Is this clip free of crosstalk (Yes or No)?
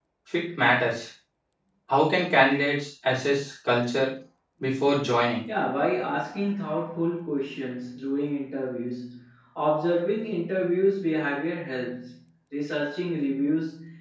Yes